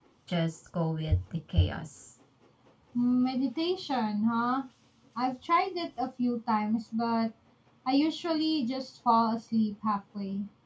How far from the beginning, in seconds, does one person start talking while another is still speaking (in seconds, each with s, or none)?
none